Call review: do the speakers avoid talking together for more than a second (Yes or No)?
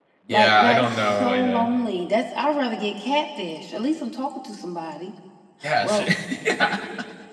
No